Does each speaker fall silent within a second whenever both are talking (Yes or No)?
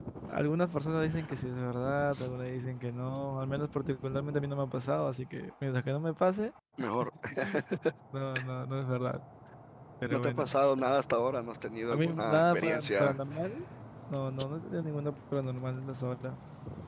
No